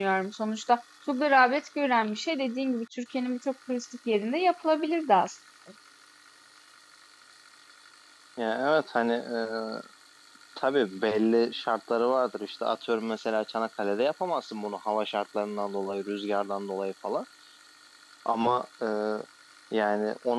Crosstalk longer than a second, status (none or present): none